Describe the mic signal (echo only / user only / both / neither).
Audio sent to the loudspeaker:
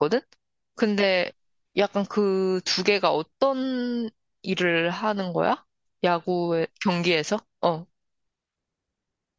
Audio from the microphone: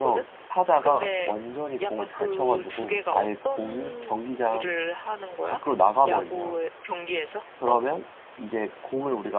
both